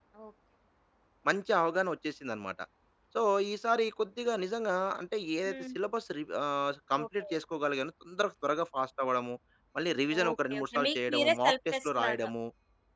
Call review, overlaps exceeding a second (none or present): present